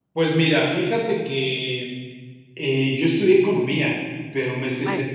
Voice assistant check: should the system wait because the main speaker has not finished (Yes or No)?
Yes